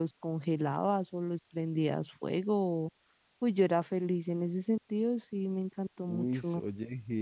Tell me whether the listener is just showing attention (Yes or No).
No